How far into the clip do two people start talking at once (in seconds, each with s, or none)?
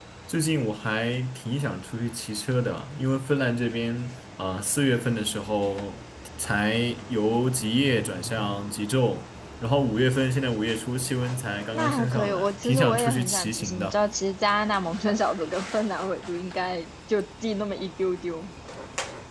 11.7 s